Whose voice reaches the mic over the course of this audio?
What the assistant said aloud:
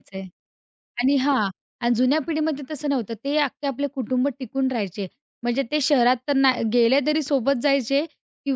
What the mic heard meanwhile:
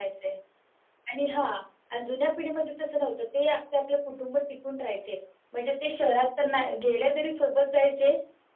echo only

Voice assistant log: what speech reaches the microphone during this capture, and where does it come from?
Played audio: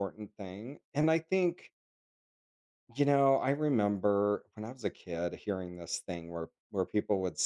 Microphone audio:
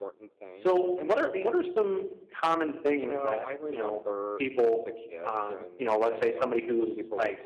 both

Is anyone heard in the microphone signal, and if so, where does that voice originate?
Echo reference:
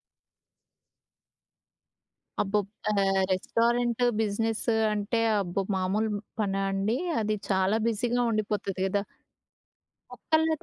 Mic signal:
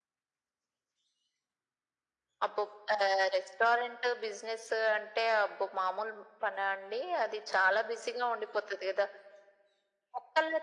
echo only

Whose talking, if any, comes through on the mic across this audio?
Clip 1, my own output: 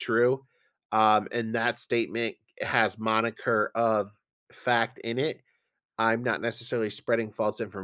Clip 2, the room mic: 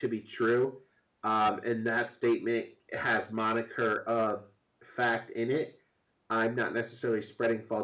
echo only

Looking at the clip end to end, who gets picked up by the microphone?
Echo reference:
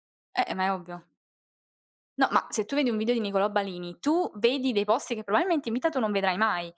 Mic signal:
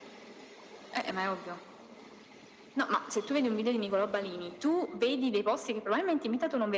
echo only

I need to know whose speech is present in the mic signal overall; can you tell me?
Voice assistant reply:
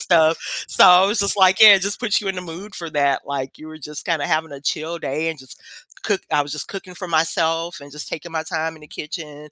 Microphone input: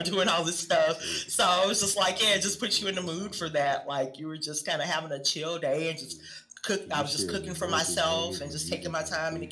both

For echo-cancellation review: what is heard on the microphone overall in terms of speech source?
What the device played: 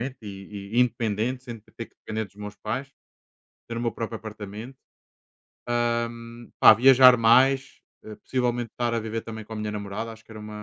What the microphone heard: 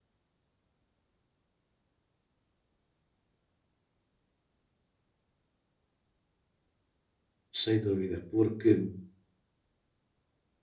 user only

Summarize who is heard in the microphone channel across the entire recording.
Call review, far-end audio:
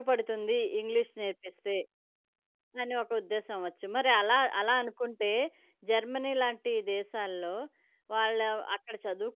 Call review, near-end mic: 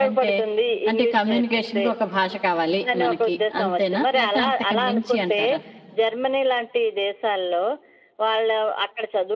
both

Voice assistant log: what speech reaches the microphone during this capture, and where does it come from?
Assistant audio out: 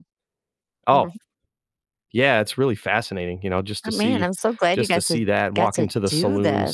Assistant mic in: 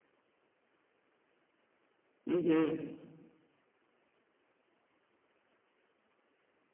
user only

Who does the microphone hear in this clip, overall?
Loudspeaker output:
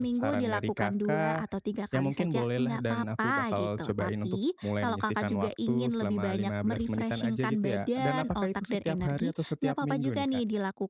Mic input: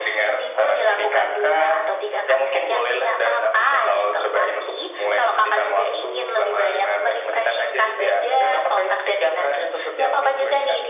echo only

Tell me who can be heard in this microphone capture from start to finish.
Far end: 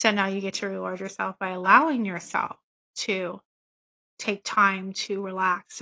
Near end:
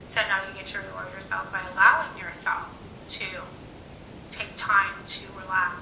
echo only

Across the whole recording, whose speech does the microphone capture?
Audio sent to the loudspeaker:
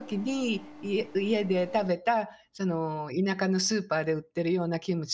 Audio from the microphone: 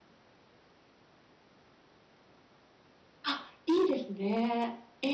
user only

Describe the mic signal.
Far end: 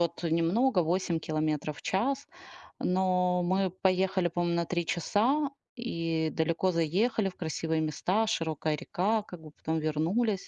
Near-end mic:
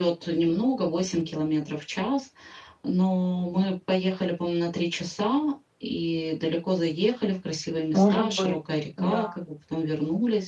both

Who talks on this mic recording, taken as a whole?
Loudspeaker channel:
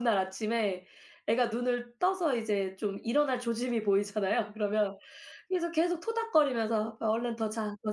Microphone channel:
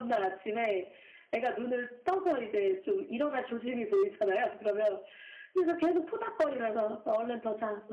echo only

